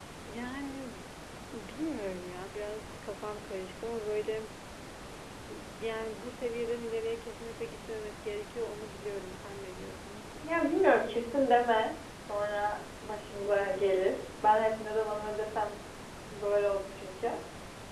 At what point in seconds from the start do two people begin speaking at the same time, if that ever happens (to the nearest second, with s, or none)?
none